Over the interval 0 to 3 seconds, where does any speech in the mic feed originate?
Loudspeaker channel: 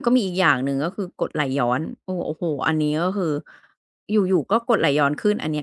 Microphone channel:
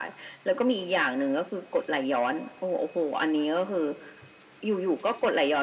echo only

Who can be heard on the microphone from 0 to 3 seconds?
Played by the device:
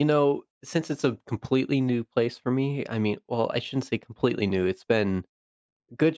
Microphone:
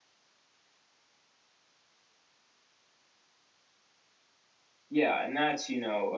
neither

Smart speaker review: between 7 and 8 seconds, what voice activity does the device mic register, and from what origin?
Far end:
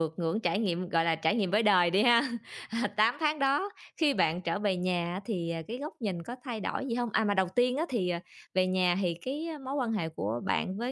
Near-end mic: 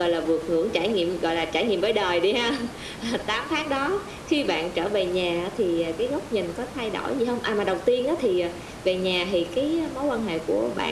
echo only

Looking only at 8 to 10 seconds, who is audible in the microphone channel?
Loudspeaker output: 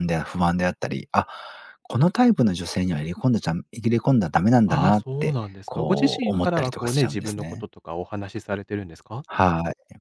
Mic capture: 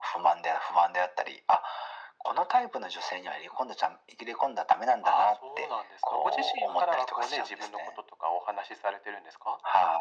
echo only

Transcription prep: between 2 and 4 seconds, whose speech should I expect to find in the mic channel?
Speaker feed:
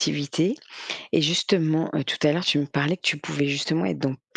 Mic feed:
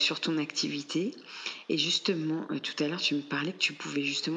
echo only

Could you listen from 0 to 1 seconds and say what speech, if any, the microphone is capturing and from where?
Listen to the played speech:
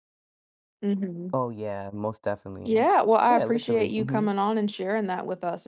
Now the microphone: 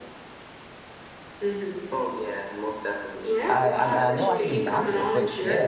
neither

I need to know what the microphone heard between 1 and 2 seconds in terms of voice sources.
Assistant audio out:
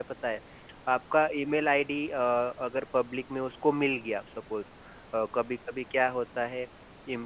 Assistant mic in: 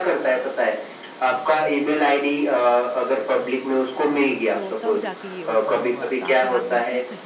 echo only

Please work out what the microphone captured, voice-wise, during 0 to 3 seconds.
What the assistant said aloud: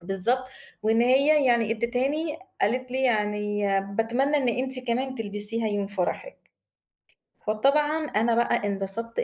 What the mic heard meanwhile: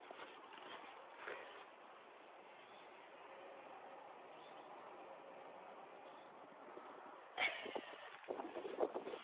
neither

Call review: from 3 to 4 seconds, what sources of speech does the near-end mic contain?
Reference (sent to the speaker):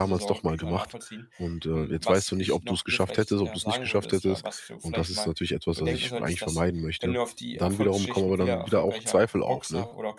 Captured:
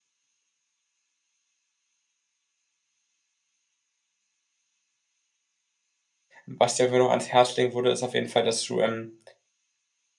neither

